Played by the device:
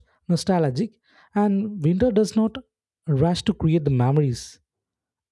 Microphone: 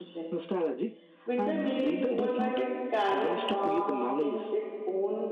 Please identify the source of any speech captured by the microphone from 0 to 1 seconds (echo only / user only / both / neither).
both